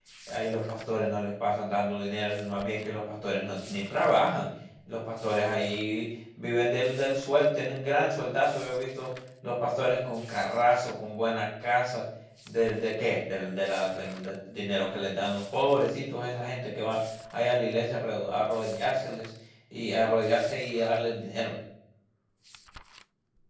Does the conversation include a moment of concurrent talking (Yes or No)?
No